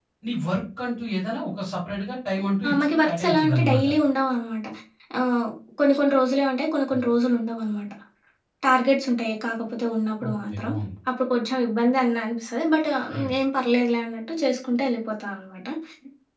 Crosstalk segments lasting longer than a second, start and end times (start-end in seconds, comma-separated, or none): 2.7-3.9